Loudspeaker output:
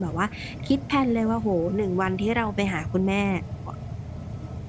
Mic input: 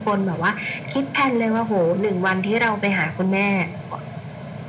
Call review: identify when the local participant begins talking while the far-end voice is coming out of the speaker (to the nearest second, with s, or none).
none